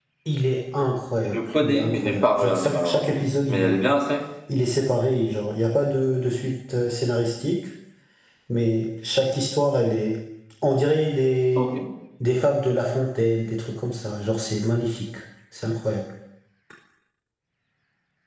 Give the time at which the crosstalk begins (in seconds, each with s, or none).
1.2 s